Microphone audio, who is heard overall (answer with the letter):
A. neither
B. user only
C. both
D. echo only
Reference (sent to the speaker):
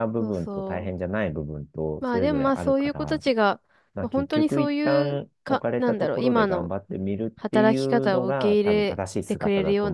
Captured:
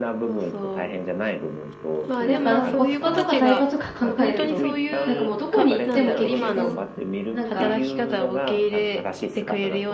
C